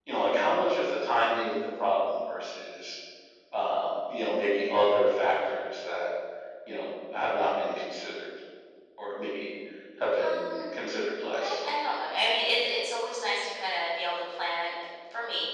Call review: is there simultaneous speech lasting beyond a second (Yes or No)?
No